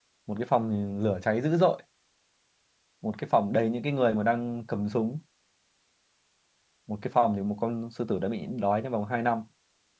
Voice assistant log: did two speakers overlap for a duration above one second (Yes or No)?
No